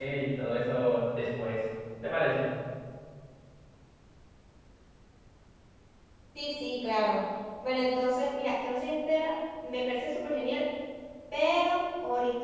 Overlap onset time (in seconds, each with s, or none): none